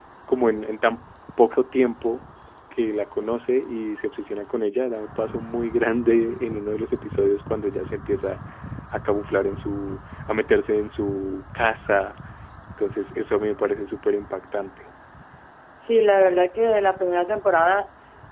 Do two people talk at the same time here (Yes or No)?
No